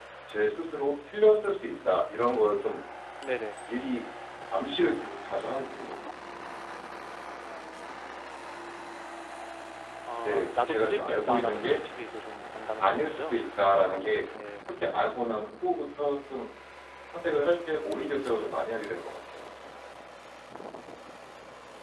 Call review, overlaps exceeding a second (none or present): present